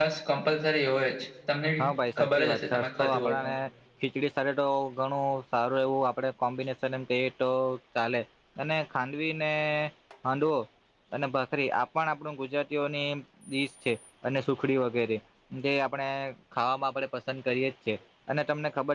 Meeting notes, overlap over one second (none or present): present